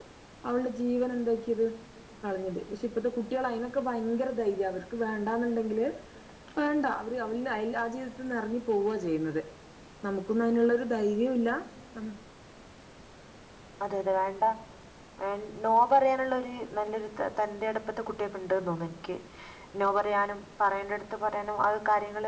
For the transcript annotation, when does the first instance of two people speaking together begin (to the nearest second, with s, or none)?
none